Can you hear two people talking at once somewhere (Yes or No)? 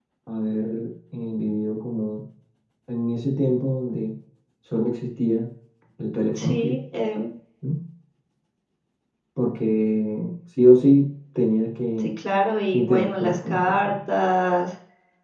Yes